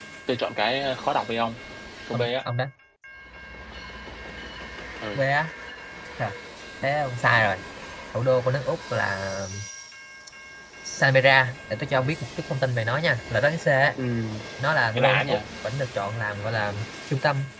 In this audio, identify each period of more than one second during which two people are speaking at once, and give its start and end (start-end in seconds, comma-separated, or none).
none